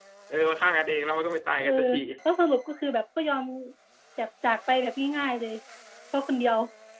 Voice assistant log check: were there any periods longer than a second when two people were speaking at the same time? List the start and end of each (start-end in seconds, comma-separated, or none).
none